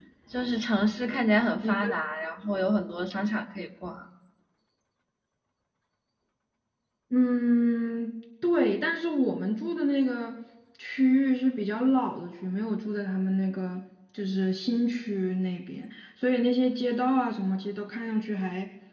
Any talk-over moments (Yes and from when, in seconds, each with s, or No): No